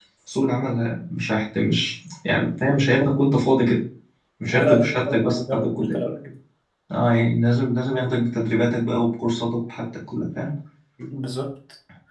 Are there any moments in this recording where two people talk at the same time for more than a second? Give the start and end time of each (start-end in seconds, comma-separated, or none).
4.5-6.0